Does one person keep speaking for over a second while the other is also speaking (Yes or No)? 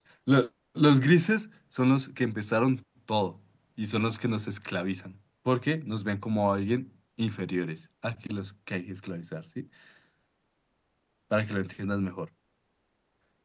No